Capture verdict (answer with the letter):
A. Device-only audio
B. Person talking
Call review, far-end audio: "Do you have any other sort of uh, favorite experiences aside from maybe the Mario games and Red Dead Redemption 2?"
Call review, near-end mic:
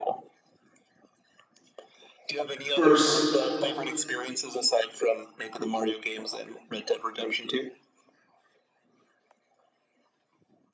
B